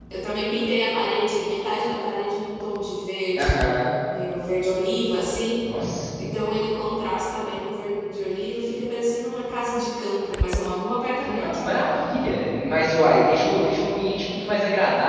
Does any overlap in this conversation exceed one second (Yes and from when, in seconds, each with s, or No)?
No